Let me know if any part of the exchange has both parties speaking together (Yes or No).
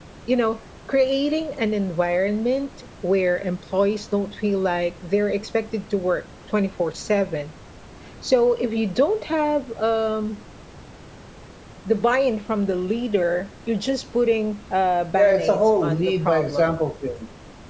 Yes